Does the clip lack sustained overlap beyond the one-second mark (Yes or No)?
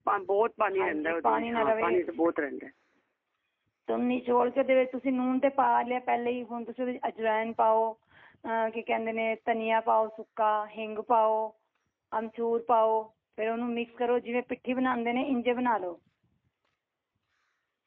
No